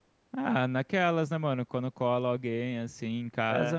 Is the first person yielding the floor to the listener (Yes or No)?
No